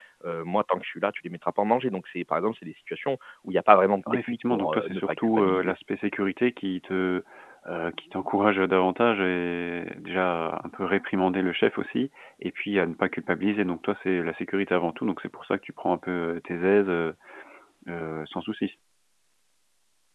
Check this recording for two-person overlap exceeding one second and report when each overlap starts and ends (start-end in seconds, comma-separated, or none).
4.3-5.7